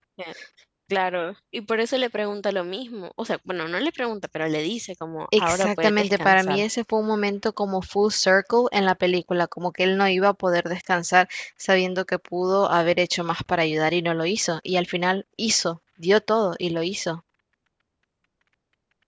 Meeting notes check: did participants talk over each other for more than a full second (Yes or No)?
Yes